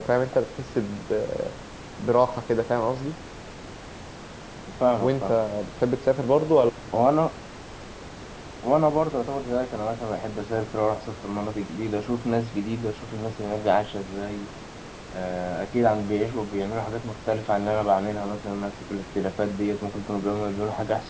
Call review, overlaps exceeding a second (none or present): none